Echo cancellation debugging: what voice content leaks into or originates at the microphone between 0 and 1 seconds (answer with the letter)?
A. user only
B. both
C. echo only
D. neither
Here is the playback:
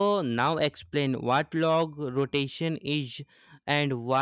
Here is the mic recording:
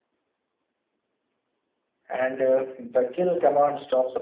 D